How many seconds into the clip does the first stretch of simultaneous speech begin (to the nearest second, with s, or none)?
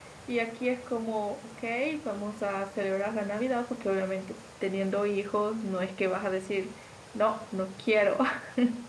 none